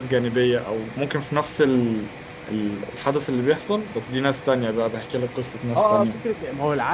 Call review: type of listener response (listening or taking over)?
taking over